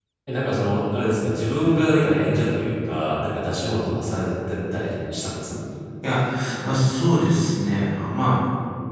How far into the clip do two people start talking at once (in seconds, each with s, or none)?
none